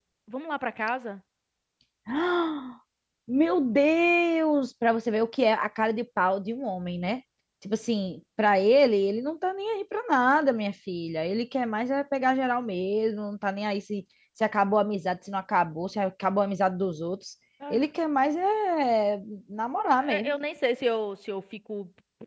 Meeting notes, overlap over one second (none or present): none